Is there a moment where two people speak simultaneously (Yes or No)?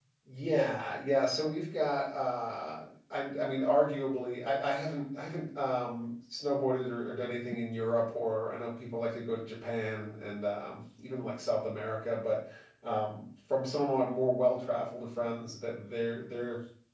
No